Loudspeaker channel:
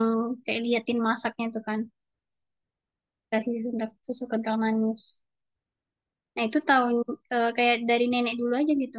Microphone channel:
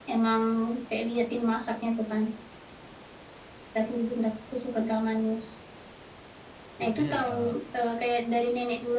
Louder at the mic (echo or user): echo